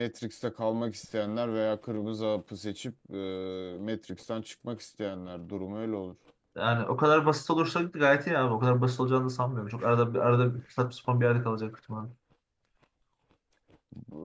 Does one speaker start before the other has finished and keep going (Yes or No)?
No